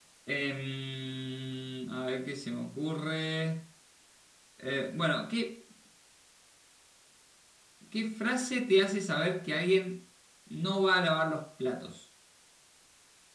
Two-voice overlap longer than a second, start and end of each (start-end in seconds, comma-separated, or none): none